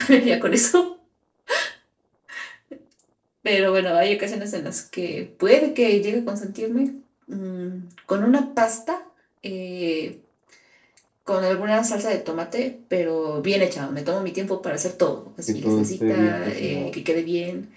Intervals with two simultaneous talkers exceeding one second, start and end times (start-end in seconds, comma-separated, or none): 15.5-17.0